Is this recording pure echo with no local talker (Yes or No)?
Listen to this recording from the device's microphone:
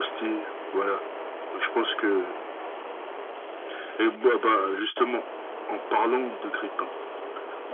Yes